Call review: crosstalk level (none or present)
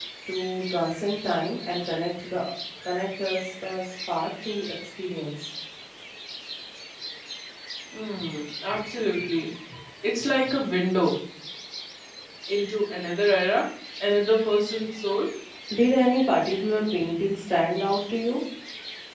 none